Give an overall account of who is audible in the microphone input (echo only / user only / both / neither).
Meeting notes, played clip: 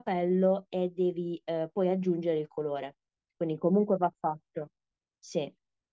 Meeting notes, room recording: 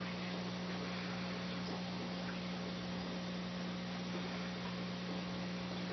neither